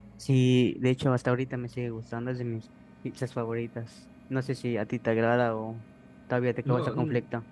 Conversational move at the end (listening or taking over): taking over